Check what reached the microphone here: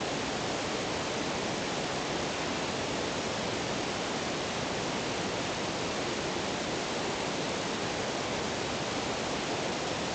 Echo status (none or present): none